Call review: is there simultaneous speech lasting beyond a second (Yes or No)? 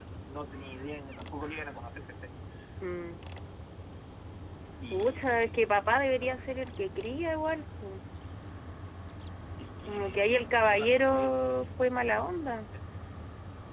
Yes